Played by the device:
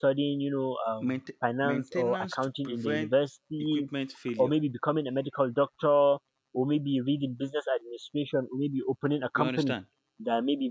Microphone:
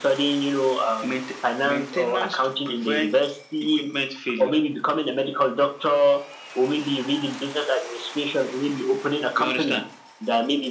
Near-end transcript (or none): none